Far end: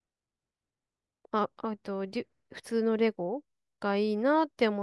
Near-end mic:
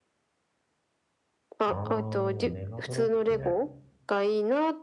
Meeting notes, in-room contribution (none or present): present